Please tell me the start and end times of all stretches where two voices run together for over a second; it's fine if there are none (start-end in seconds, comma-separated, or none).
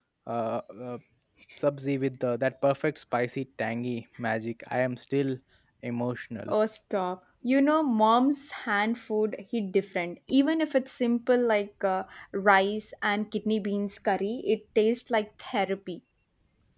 none